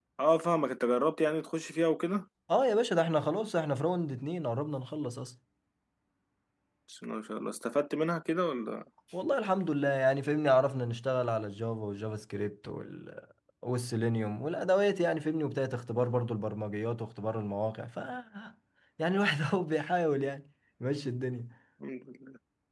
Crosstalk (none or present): none